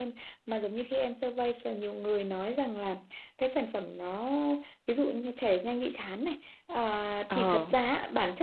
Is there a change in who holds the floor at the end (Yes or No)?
No